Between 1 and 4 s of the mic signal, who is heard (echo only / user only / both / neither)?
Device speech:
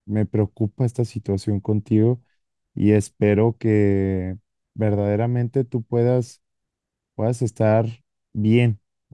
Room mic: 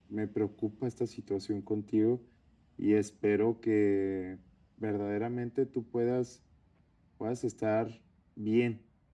echo only